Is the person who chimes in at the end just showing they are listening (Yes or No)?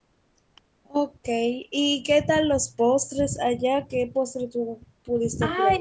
No